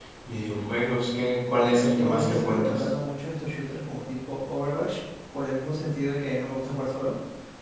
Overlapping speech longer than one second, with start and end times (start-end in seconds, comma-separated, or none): 1.6-2.8